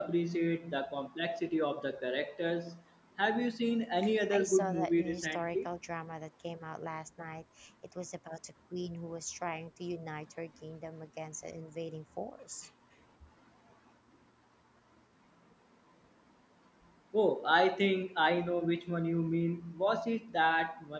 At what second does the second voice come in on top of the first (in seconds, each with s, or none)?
4.3 s